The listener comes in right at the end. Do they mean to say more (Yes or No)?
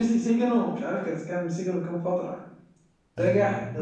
No